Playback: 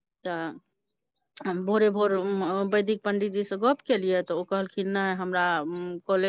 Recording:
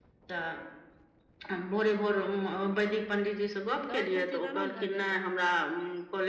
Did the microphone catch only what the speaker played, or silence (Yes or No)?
No